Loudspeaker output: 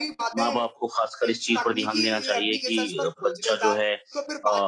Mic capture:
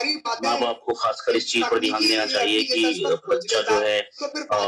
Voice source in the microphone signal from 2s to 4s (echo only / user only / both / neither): echo only